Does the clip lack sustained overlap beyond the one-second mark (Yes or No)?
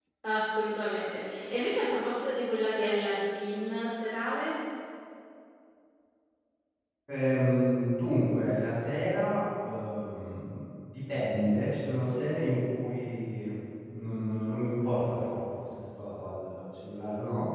Yes